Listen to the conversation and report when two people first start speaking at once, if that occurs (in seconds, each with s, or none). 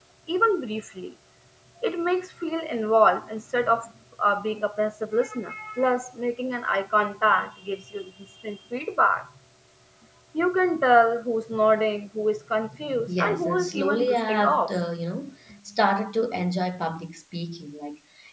13.1 s